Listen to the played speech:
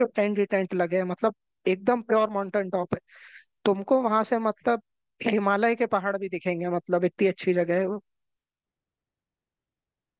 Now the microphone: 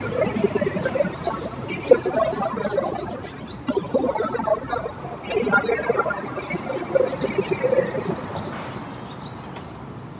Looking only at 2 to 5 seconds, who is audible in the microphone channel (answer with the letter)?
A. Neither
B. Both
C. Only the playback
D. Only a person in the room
C